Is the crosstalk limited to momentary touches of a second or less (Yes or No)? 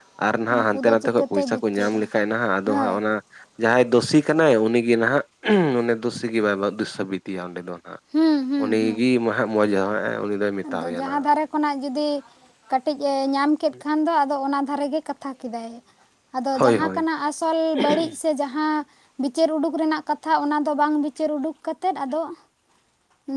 No